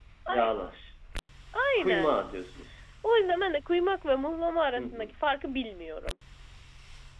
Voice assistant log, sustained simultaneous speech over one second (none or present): none